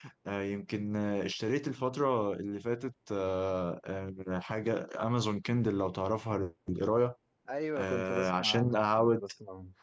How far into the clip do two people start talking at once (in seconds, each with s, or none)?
7.8 s